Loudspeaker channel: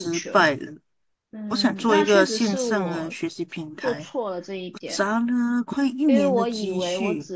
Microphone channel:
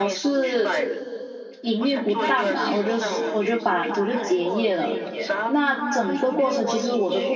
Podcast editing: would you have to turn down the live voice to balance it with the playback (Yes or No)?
Yes